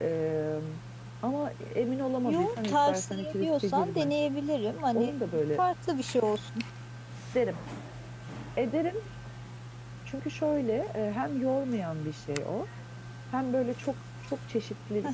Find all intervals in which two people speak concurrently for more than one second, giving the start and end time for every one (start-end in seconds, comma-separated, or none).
2.2-4.1